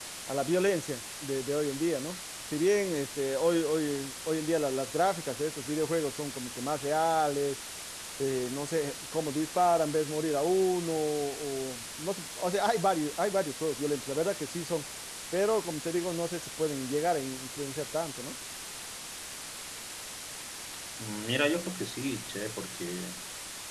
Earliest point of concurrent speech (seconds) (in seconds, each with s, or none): none